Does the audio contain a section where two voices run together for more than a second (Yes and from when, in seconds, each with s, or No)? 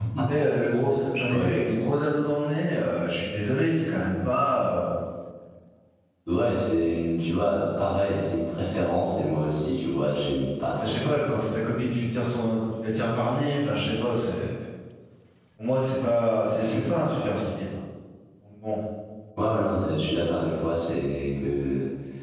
No